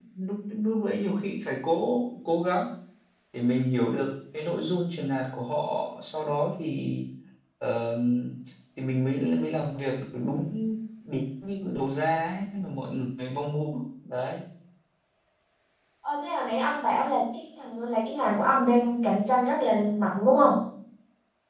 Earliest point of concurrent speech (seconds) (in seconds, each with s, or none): none